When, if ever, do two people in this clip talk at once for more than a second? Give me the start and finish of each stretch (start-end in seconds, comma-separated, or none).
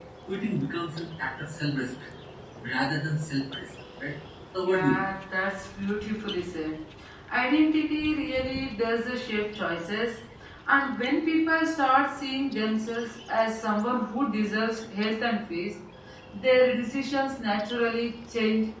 none